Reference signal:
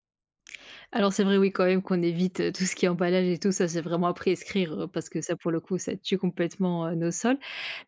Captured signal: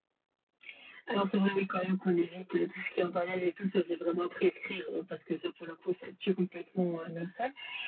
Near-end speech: none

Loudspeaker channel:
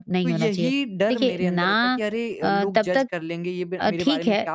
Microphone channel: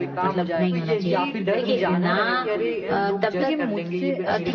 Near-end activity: present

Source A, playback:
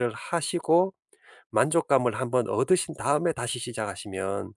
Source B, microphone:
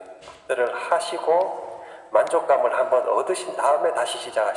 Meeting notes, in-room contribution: none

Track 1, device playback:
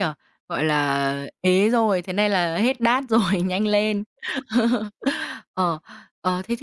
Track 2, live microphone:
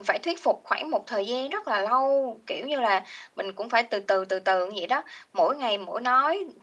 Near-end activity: present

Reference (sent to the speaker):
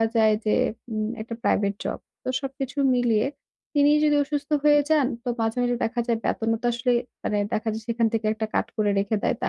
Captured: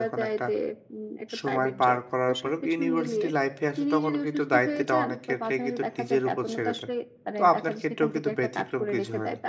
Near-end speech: present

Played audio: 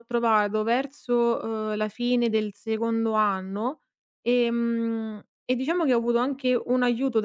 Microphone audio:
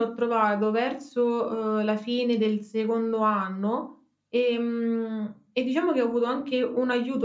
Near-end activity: none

